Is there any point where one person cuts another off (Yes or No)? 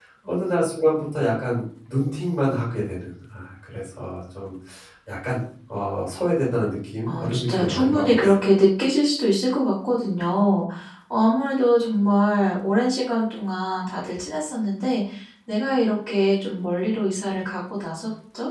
Yes